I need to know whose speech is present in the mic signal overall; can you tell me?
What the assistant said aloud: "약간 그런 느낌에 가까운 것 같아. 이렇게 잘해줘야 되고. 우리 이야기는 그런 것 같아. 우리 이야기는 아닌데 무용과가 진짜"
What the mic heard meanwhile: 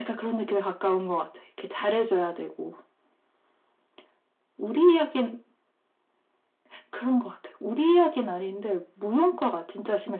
echo only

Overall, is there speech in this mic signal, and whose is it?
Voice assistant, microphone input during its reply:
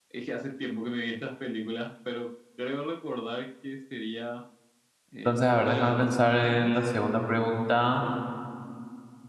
both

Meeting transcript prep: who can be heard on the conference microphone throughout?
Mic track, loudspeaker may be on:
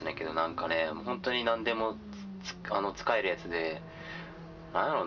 echo only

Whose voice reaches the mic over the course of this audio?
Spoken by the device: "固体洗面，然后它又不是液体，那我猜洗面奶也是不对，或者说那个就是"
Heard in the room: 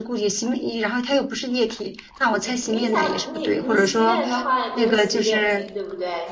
both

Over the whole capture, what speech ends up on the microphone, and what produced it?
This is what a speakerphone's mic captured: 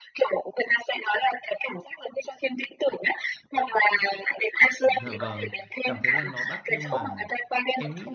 both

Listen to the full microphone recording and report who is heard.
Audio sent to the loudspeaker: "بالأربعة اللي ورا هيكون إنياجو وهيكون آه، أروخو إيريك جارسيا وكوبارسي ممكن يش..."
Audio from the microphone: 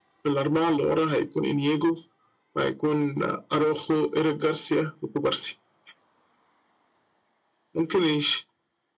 echo only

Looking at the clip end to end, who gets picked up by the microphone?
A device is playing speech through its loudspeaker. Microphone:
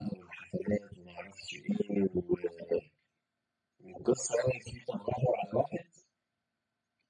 echo only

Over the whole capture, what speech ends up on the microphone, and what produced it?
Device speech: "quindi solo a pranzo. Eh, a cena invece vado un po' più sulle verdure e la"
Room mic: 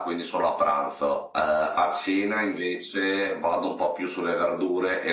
echo only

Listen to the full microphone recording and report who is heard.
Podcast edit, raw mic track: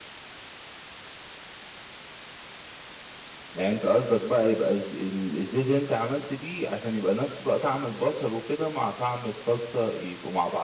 echo only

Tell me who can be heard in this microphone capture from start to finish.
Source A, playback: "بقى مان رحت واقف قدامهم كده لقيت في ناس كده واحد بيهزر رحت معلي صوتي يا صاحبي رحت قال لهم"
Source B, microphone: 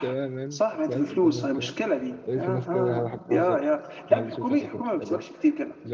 both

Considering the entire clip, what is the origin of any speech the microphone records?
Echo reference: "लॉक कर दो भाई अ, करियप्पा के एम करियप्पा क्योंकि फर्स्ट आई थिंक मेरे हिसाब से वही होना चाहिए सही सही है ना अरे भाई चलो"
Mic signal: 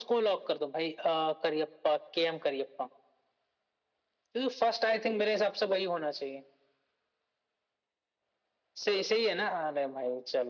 echo only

